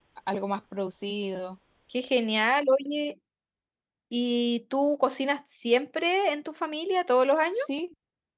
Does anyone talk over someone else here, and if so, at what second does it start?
none

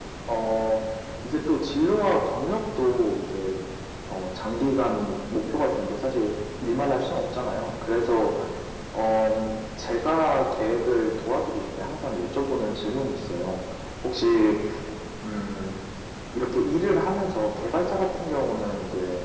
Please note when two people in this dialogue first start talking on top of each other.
none

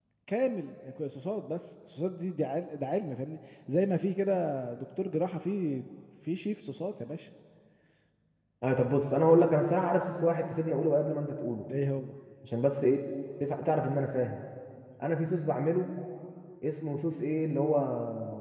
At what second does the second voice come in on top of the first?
none

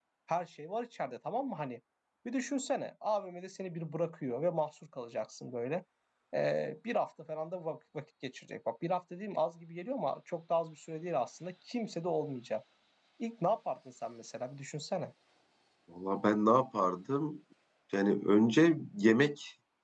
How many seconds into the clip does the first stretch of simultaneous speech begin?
none

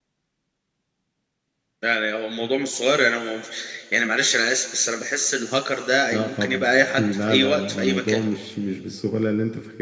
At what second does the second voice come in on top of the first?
6.1 s

